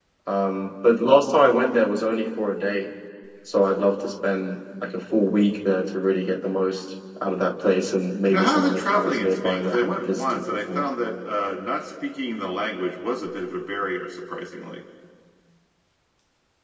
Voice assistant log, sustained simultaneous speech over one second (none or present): present